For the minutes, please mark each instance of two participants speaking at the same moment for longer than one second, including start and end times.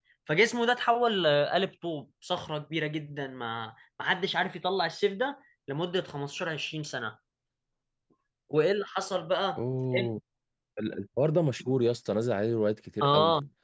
none

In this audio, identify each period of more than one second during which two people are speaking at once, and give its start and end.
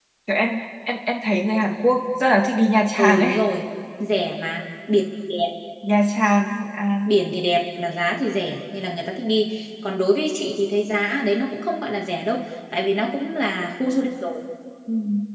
none

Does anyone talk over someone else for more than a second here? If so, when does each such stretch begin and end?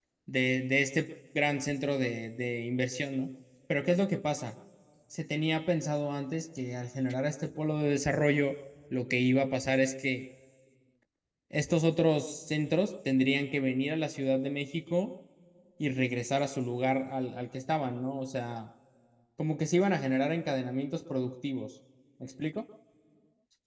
none

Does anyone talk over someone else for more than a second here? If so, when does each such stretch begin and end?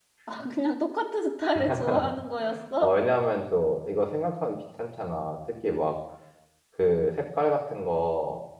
none

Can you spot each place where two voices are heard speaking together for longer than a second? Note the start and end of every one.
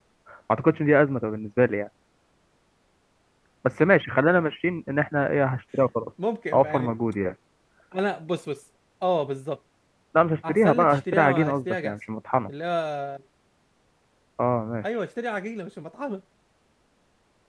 10.5-12.0

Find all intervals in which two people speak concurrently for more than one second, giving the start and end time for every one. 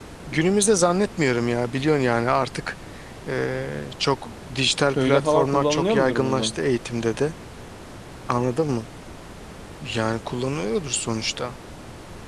4.9-6.5

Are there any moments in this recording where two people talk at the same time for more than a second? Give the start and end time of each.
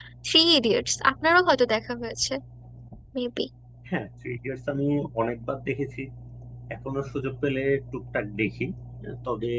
none

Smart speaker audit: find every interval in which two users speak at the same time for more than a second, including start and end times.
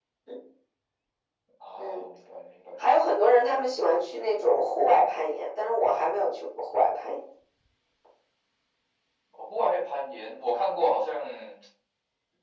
none

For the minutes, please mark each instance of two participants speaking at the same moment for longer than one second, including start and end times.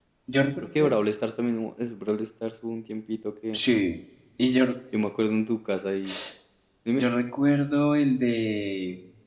none

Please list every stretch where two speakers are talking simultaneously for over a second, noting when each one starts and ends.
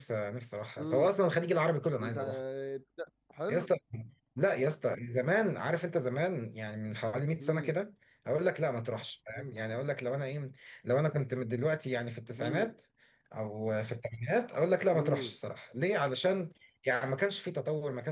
none

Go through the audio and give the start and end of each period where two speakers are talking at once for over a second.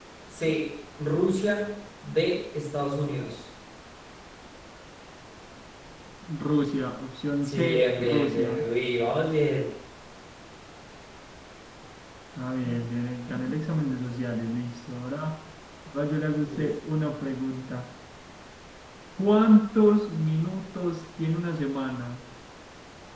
7.4-8.7

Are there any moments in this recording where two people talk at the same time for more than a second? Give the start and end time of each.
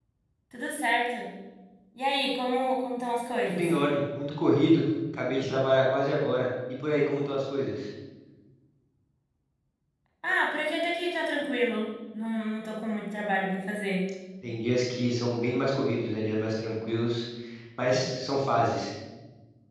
none

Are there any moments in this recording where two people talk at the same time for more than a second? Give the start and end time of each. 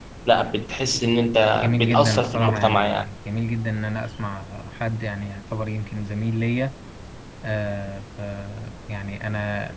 1.5-3.0

